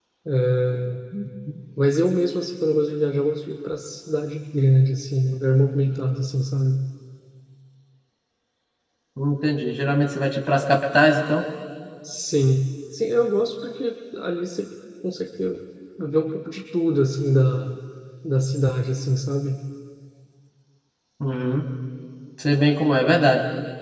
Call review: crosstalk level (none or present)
none